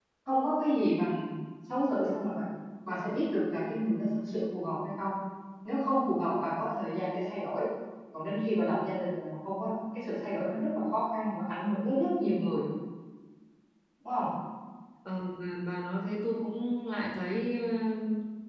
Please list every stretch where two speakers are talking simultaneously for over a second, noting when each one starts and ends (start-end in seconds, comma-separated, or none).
none